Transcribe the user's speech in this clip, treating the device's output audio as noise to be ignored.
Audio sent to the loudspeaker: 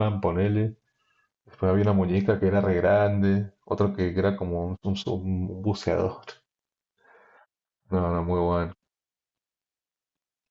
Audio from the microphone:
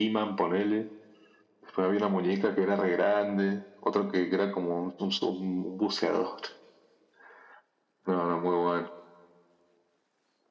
none

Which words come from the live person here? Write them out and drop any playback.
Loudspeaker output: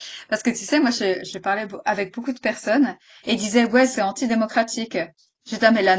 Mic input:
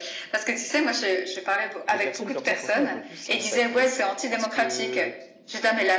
Les personnes comme ça, franchement, on peut plus les saquer parce que

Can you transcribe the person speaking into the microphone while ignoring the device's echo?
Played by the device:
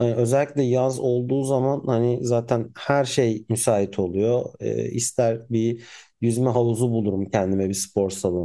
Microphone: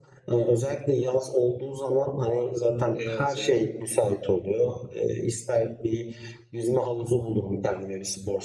evet evet

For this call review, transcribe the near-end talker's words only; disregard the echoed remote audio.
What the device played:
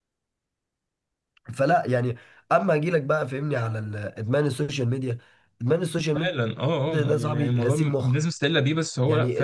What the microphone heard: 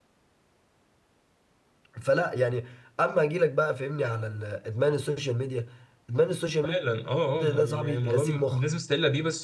none

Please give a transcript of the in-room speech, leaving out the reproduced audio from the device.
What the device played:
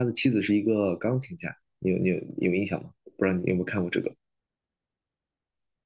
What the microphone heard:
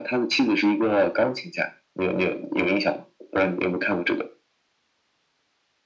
none

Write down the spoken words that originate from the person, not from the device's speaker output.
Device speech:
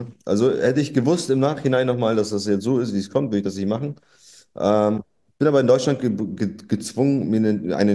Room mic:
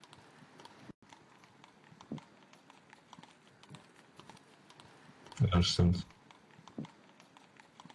ja, das stimmt.

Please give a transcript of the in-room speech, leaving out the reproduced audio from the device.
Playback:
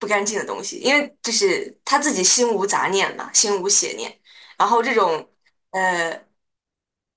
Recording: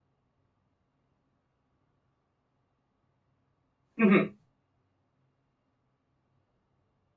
嗯哼

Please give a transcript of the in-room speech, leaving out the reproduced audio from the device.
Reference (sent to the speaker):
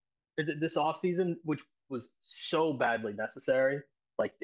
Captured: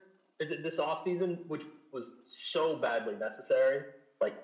none

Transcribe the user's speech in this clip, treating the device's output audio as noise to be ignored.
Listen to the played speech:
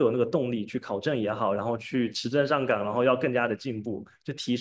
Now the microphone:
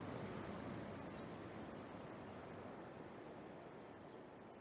none

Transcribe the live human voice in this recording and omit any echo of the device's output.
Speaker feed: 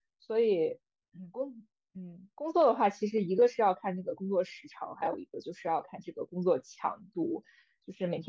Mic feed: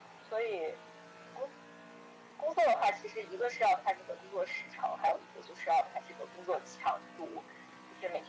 none

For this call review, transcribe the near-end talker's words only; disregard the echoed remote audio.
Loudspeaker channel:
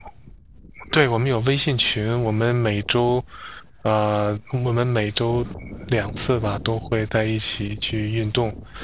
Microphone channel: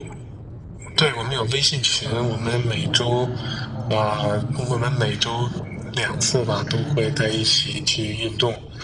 呃，书我也看吧，然后动动漫我也看。呃，你平时看动漫吗？

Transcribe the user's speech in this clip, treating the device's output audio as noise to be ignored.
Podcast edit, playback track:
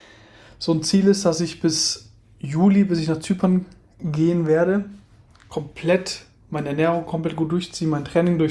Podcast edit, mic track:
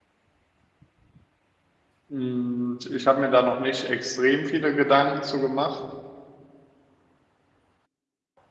Mm, Ich habe mir da noch nicht extrem viele Gedanken zu gemacht.

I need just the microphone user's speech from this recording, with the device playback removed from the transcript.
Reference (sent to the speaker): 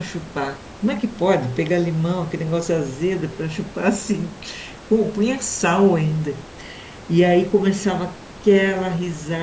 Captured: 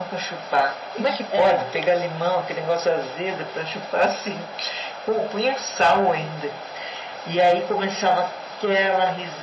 Ixi, Era.

